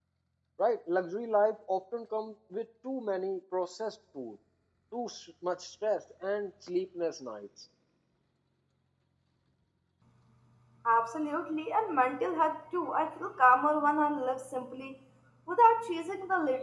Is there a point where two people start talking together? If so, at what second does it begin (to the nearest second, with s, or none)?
none